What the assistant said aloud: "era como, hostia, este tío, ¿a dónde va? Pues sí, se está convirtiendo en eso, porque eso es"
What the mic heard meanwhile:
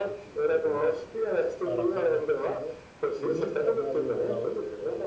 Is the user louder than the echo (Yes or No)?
No